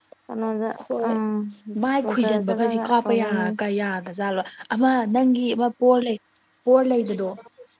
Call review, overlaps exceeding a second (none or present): present